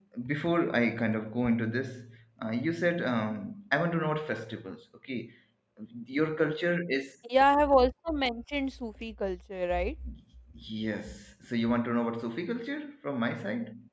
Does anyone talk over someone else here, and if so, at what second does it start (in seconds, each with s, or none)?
none